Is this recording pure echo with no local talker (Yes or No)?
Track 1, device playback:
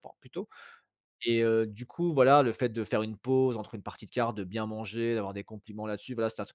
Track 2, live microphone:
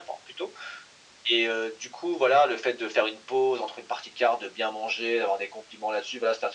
Yes